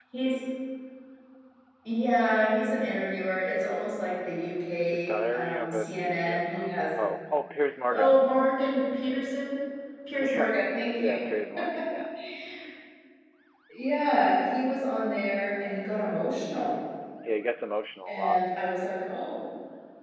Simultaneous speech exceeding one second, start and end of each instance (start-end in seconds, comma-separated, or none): 4.8-6.7